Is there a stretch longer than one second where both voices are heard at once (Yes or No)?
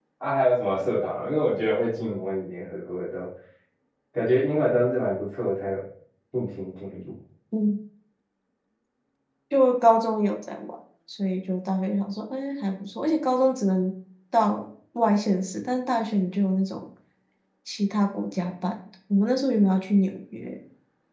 No